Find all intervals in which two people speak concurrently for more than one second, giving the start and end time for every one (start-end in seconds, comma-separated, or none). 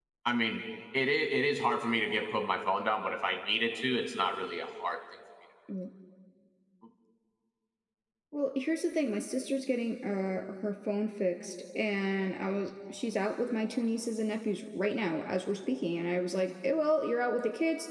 none